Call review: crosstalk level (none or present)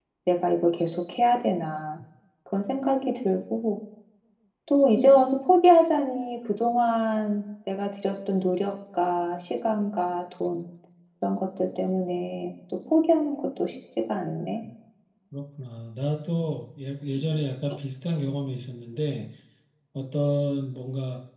none